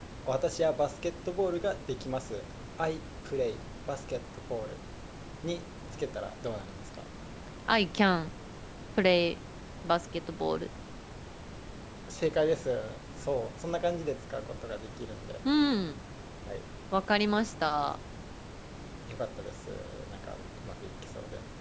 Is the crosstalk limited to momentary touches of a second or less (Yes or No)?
Yes